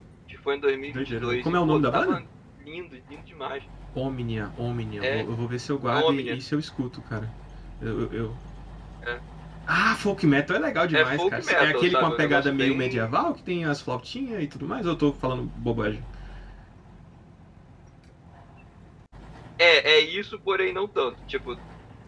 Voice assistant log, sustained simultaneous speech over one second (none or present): present